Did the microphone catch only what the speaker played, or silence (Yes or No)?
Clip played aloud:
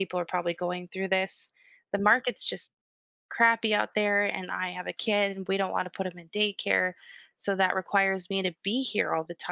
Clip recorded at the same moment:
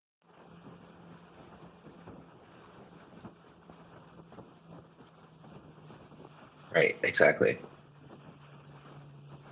No